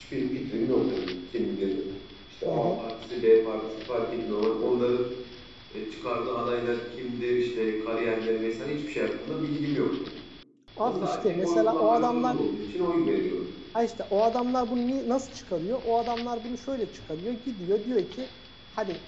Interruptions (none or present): present